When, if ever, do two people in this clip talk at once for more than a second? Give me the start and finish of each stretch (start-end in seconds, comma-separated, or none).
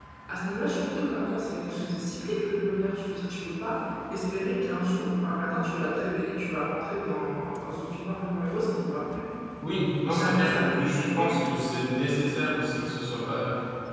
10.1-11.3